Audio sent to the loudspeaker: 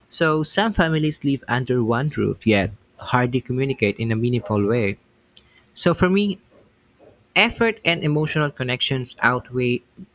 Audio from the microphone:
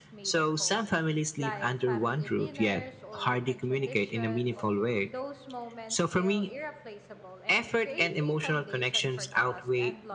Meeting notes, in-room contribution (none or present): present